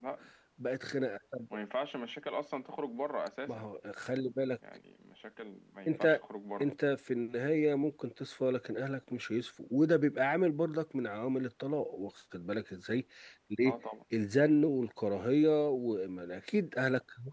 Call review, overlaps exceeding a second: none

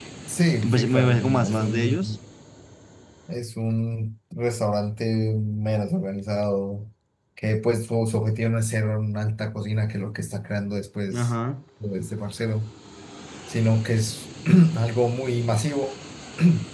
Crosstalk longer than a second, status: present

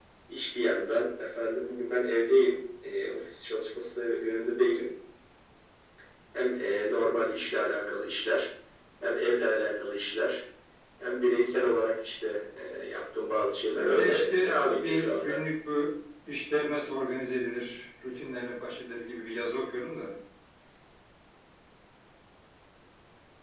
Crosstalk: present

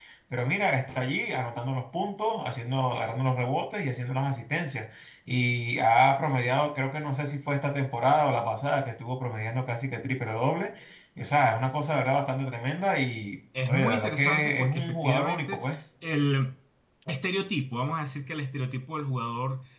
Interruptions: present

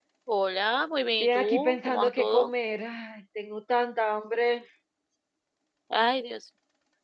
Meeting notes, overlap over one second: present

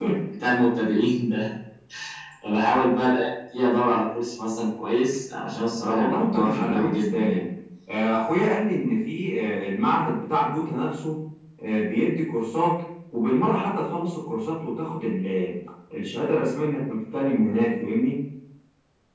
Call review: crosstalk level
present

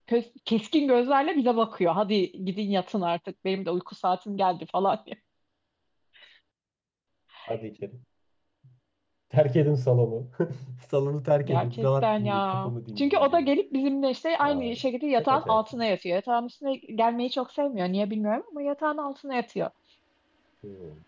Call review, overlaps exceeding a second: present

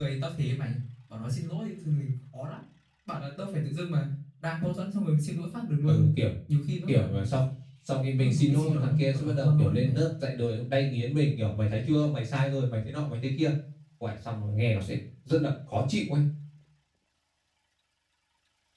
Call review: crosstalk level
present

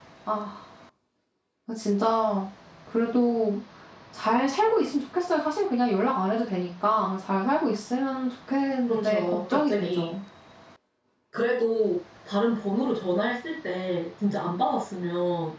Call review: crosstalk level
present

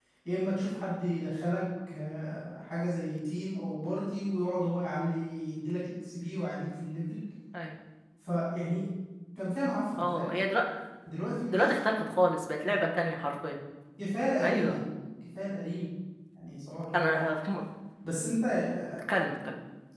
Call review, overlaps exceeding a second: none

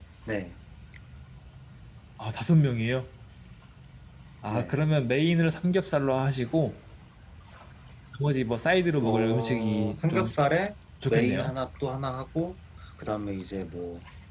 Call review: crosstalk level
present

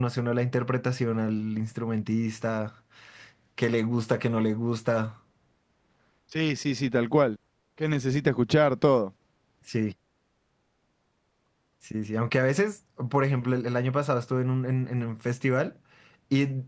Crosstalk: none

